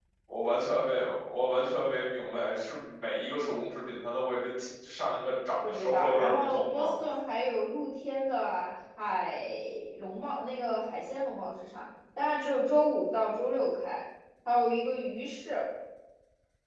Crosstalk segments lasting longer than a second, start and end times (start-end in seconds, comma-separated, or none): 5.7-6.9